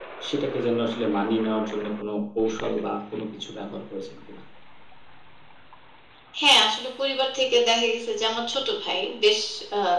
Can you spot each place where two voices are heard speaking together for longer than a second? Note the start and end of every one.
none

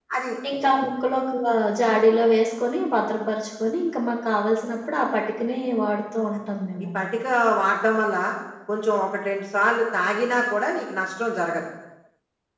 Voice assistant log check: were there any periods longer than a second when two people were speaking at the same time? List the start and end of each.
none

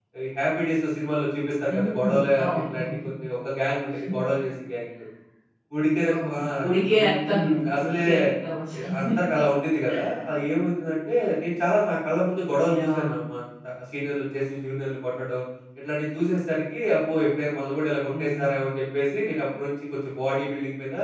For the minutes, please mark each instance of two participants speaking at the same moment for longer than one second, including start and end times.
1.7-3.0, 6.2-7.4

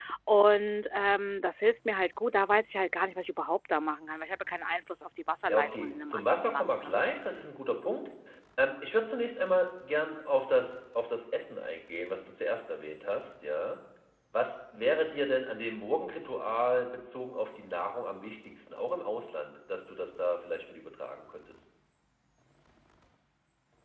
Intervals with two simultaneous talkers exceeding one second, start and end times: 5.5-7.0

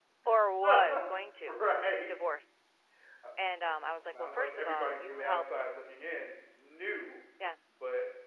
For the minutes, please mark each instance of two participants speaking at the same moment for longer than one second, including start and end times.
4.2-5.6

